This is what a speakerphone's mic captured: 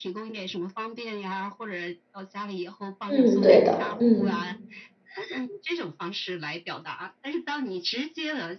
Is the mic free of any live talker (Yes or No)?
No